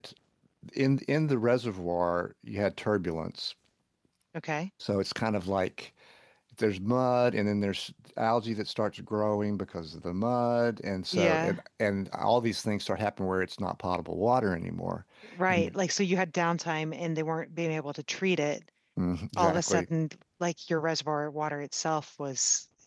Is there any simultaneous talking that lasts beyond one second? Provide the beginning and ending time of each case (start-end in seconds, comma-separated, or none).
none